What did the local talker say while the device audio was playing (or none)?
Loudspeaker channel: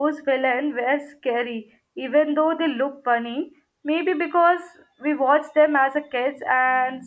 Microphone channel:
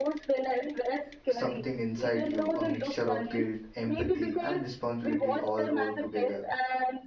something inside you, a mixture of guilt, empathy, and responsibility all rolled together.